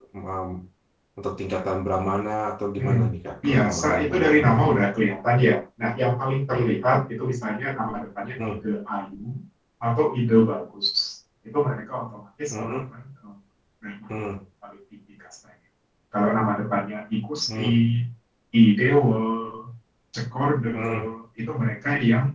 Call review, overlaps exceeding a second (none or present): present